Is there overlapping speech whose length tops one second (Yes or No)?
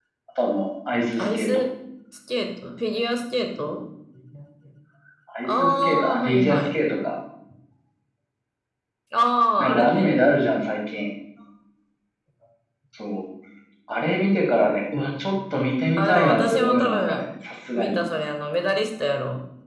Yes